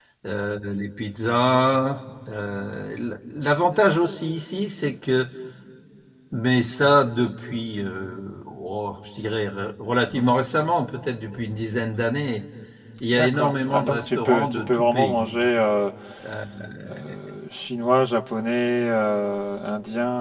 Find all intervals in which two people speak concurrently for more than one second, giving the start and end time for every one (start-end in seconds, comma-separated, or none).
13.1-15.3